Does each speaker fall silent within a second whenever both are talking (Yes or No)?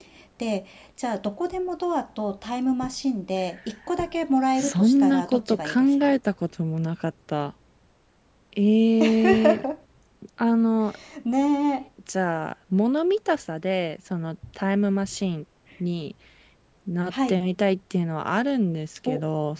No